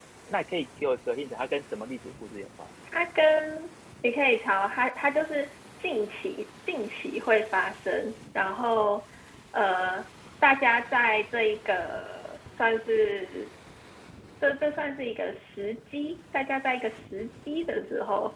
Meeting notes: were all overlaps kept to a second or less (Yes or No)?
Yes